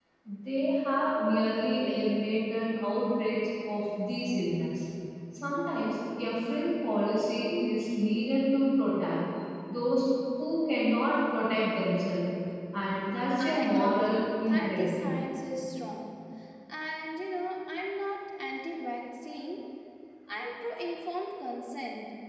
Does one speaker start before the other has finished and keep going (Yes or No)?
Yes